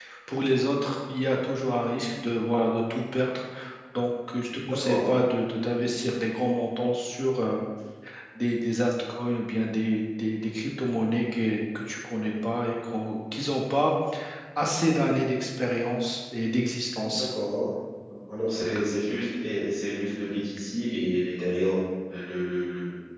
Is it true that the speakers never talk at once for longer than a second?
Yes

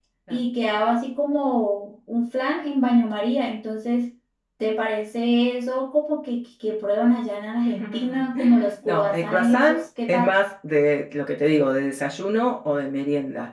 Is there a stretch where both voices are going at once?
Yes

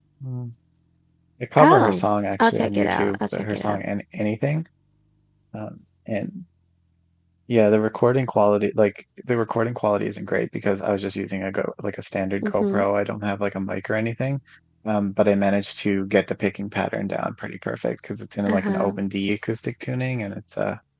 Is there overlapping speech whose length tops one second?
Yes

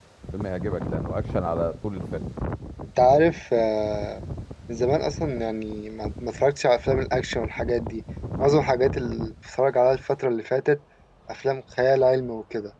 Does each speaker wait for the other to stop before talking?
Yes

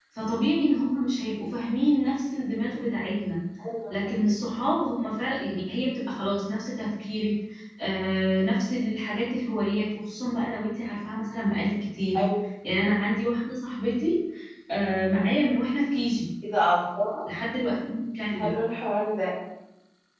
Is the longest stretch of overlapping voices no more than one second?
Yes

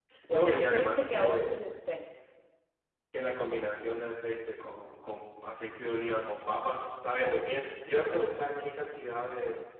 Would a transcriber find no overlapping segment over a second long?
No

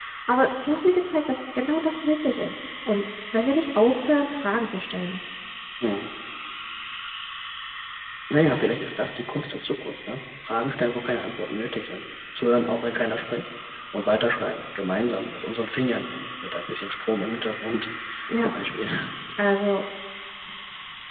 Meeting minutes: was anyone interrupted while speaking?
No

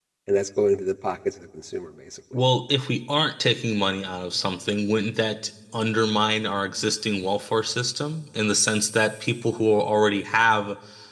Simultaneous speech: No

